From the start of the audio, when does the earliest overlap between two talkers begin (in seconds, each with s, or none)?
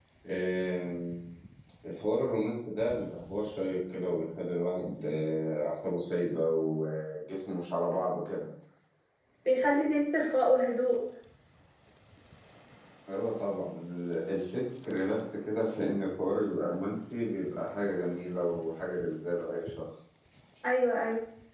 none